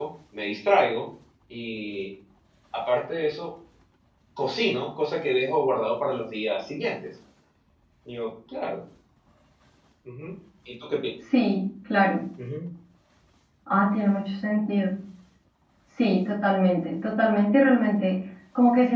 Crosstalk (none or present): none